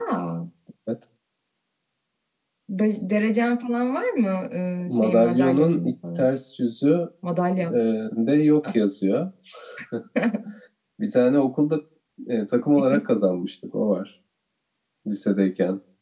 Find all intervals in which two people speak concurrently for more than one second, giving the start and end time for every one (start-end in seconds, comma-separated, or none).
4.9-6.3